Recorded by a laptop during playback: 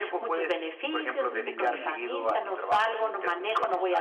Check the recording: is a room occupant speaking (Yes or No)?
Yes